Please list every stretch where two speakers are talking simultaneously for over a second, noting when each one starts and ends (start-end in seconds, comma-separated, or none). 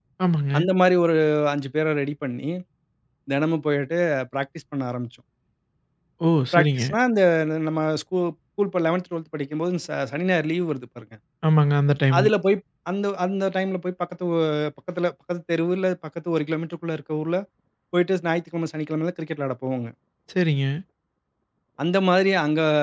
none